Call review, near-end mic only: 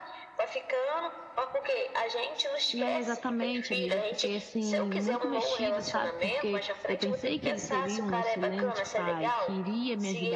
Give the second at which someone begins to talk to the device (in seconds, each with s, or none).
2.8 s